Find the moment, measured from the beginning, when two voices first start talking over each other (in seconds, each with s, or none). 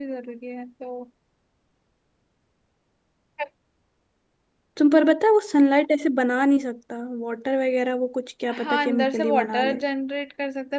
8.5 s